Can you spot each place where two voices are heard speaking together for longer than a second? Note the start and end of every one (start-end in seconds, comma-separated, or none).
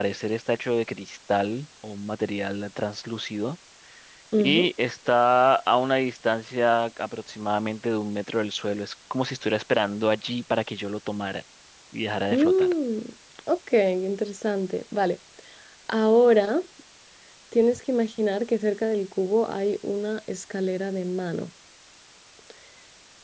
none